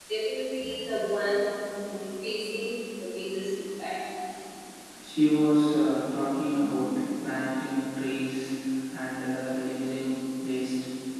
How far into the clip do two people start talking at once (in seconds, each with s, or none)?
none